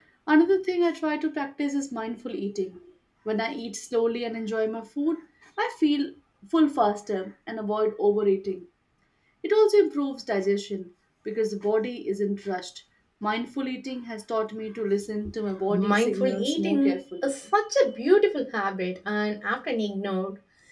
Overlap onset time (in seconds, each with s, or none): 15.7 s